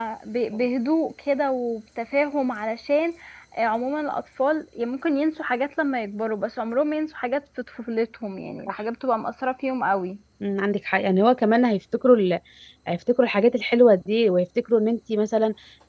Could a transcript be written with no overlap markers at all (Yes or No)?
Yes